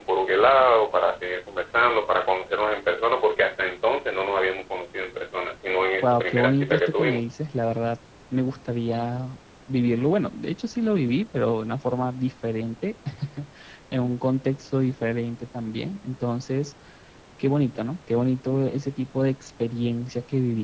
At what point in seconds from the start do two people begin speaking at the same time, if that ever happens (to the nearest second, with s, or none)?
6 s